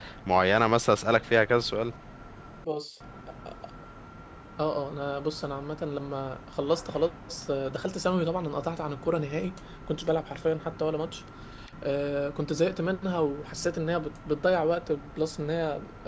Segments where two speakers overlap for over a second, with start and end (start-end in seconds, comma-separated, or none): none